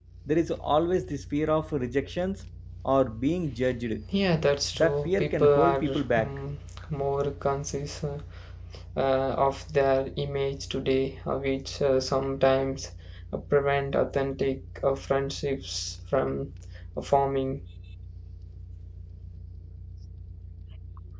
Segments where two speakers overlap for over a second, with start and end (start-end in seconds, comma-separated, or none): 4.7-6.3